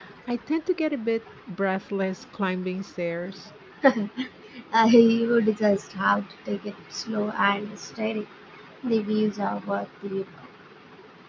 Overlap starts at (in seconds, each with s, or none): none